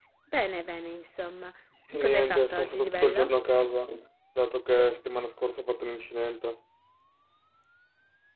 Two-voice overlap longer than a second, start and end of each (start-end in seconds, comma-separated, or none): 2.0-3.3